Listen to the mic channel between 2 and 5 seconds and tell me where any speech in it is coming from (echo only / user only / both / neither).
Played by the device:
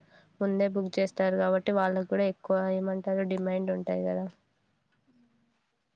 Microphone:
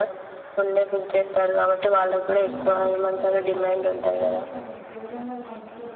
both